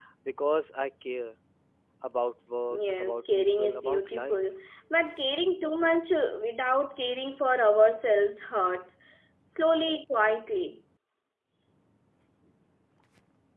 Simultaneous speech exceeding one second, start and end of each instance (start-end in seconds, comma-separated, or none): 2.7-4.4